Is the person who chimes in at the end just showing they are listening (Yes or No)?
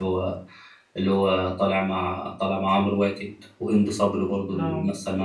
Yes